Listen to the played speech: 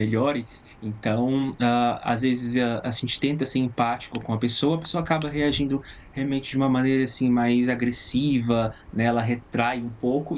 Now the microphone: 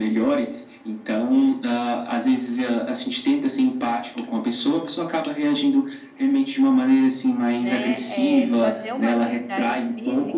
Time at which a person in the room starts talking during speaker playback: 7.6 s

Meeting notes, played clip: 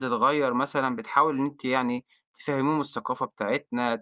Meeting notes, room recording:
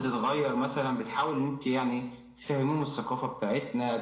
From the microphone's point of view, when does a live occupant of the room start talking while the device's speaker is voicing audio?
none

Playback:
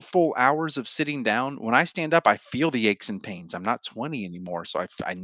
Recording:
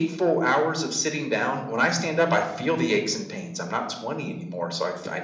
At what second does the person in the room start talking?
none

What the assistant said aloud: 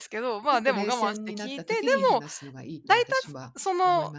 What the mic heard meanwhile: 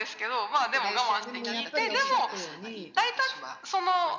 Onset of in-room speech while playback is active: 1.2 s

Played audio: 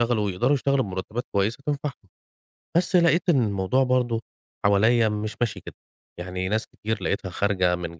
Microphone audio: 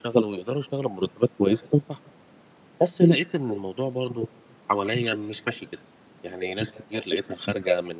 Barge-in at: none

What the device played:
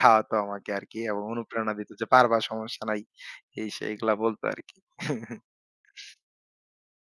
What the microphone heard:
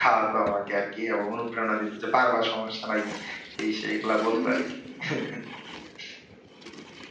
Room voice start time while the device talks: 4.3 s

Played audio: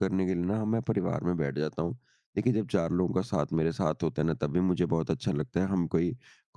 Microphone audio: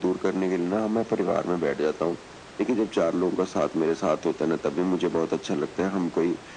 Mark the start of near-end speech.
none

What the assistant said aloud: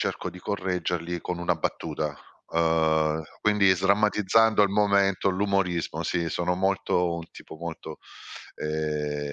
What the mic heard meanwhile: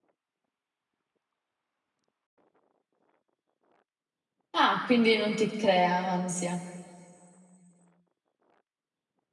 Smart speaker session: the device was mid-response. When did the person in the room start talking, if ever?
4.5 s

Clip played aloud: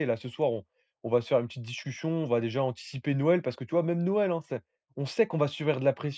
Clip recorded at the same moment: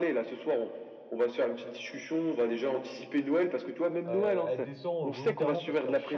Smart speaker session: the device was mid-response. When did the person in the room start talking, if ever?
4.1 s

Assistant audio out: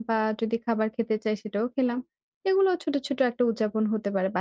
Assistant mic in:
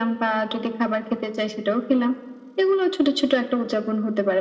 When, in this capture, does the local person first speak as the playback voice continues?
none

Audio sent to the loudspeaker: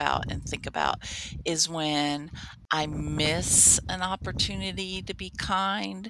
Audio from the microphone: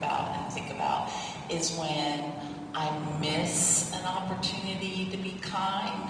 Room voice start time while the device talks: none

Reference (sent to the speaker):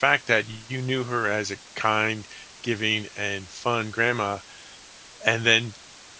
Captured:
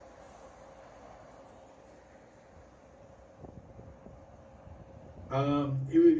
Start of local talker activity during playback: 5.3 s

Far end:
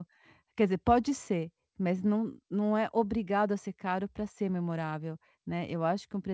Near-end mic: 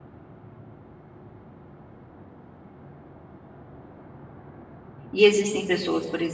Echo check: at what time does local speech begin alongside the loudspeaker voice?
5.1 s

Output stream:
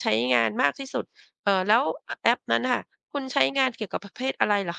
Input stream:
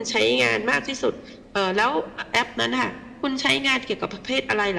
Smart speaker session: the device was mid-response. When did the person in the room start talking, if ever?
none

